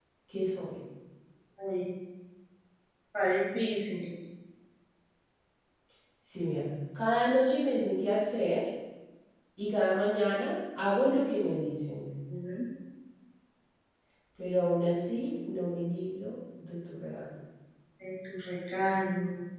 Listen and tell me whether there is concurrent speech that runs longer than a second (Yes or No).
No